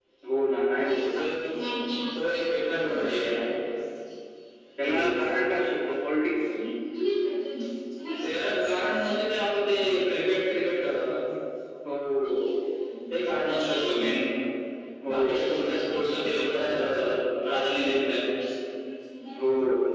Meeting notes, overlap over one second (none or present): present